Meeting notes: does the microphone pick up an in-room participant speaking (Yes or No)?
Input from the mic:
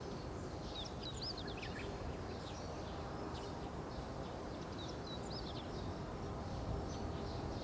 No